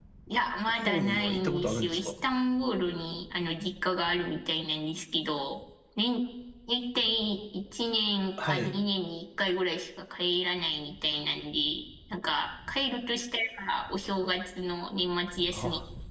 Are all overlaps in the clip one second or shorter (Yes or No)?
No